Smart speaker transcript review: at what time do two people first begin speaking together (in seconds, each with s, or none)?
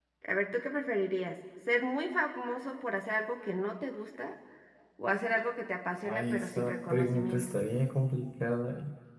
6.0 s